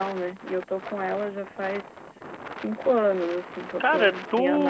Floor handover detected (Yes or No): Yes